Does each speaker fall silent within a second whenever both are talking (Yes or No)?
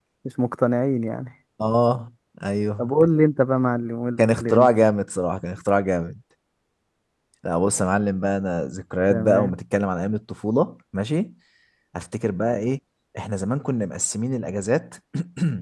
Yes